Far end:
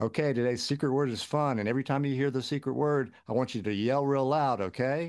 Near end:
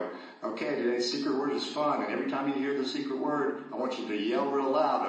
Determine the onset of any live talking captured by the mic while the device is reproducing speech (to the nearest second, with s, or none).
none